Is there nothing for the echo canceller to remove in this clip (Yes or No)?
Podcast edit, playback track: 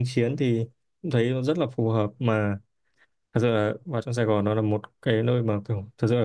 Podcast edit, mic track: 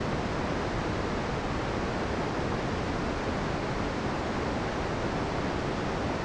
Yes